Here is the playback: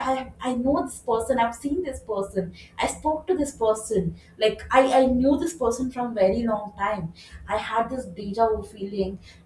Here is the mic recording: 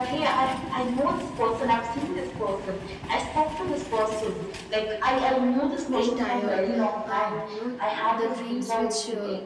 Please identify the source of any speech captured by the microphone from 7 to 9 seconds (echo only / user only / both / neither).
both